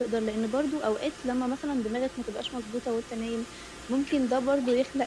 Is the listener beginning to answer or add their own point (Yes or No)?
No